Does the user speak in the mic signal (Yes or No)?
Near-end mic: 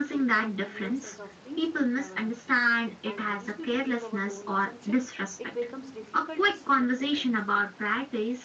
Yes